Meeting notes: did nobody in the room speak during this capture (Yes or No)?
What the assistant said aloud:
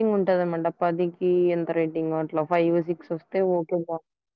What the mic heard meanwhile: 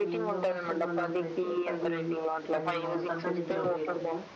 No